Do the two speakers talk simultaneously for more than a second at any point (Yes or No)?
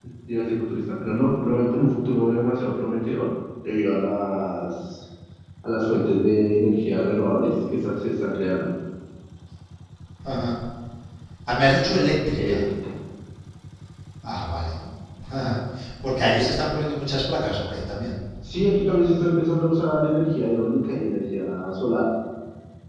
No